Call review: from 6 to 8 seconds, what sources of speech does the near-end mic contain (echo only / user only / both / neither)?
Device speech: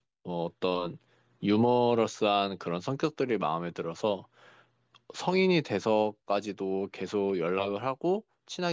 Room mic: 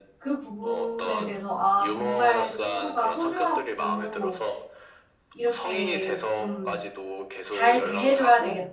both